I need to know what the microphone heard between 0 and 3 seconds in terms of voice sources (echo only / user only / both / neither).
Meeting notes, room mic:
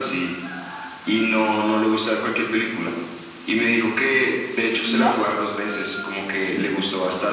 echo only